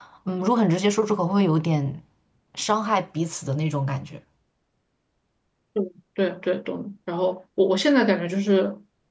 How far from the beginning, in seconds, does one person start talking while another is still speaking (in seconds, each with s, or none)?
none